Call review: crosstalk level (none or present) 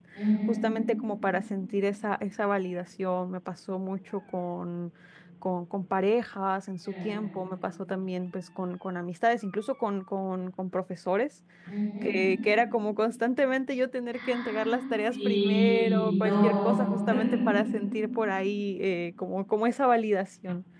present